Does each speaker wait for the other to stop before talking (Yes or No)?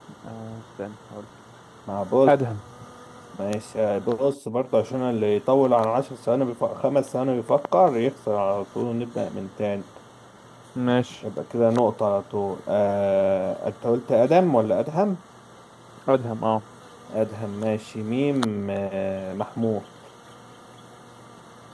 Yes